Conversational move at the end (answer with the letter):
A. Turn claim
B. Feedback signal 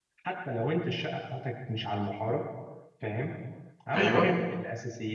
B